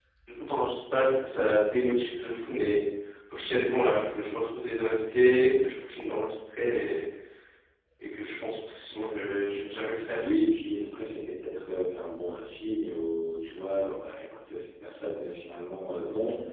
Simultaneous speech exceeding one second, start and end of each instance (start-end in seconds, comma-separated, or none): none